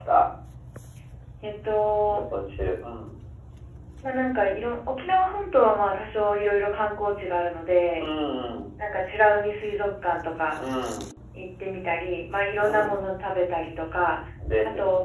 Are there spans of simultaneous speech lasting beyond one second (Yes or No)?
No